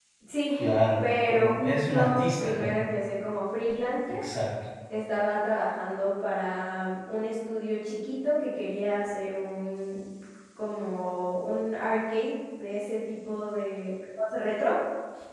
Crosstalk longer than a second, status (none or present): present